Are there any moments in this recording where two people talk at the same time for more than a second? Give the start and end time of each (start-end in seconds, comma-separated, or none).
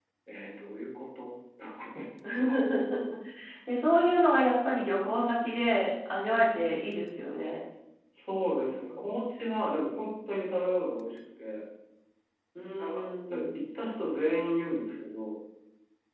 none